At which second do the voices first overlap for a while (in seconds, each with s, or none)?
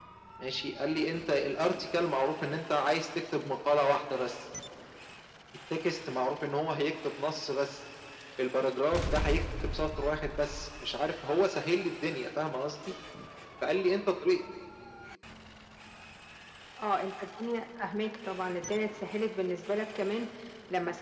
none